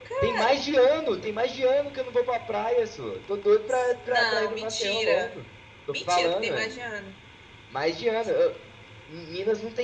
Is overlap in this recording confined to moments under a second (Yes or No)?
No